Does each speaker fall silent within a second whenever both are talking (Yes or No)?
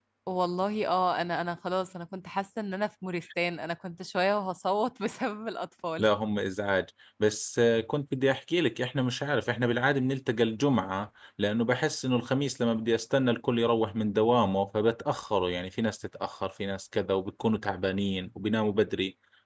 Yes